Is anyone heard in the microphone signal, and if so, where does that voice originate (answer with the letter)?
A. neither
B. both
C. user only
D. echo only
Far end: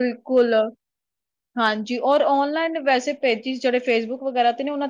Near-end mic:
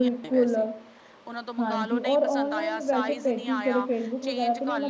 B